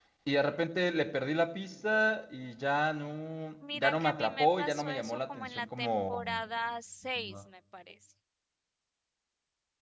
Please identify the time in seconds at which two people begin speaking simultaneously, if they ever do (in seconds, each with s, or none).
3.7 s